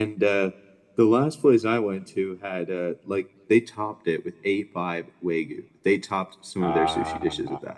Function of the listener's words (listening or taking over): listening